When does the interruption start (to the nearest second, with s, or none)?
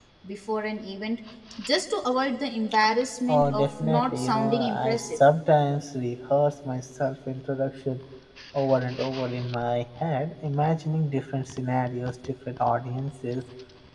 3 s